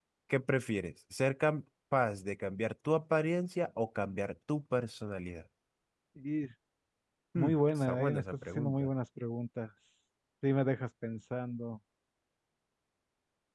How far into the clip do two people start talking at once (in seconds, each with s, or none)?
7.4 s